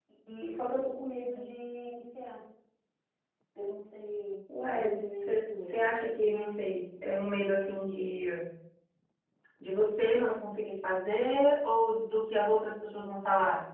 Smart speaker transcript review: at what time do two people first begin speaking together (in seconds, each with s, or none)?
4.5 s